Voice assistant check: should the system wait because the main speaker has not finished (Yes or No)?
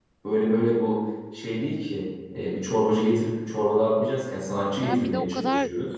No